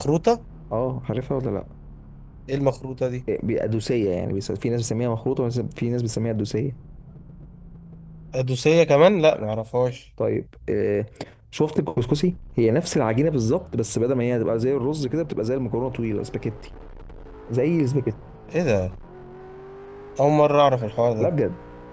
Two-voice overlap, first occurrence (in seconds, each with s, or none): none